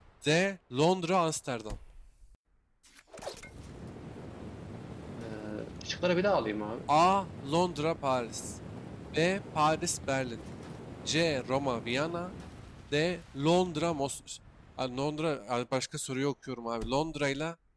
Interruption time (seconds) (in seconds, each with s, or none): none